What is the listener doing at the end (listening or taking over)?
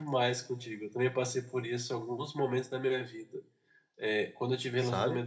listening